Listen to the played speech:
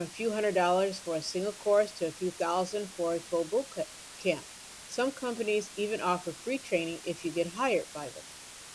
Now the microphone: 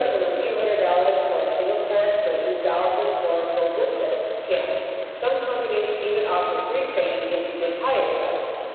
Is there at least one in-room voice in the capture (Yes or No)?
No